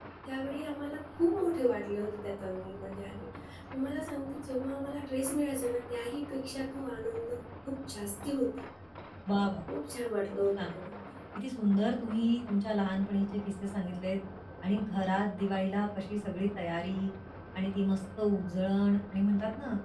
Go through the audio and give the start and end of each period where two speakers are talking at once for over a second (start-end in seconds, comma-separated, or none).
none